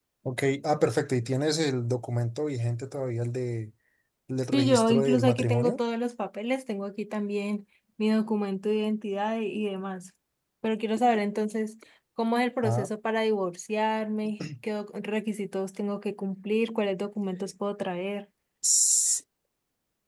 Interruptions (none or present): present